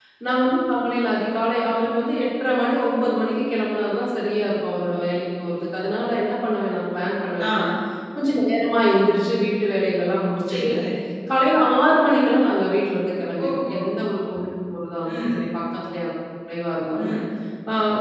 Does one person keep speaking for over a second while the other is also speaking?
No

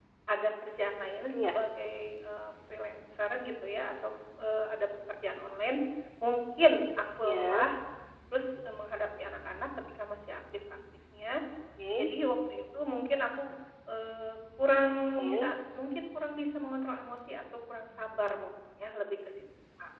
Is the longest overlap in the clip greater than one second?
No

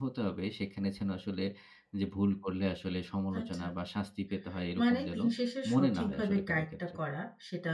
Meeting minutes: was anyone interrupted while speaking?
Yes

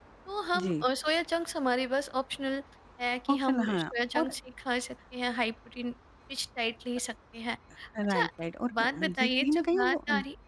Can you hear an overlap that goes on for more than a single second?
Yes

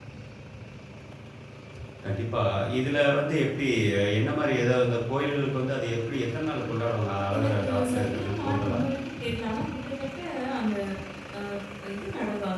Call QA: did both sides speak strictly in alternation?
No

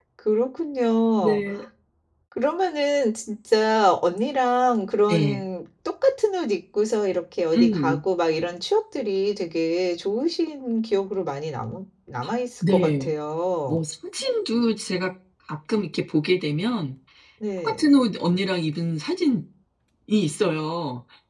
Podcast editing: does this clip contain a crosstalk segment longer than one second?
No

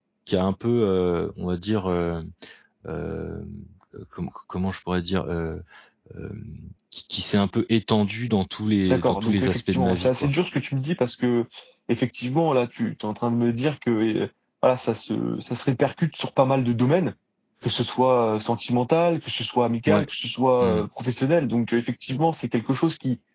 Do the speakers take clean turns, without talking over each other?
No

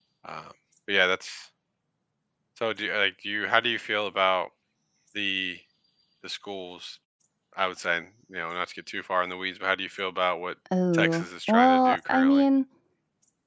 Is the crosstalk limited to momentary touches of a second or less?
No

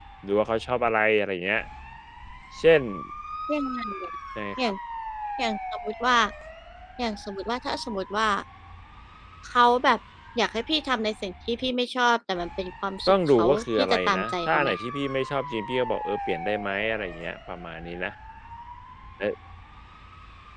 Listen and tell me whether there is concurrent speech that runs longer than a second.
Yes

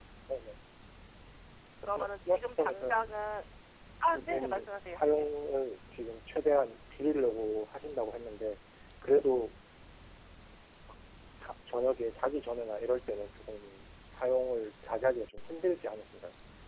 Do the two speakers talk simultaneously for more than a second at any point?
Yes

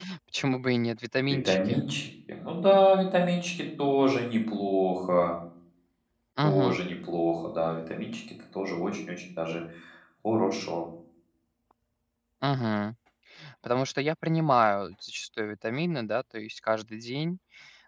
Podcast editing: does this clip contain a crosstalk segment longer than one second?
No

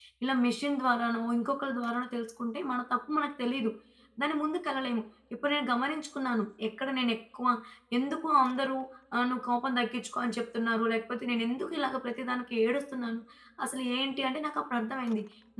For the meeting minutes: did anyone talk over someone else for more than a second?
No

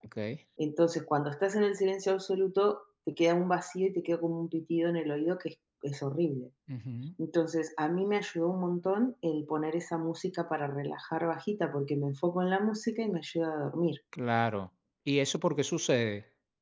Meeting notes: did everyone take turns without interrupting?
Yes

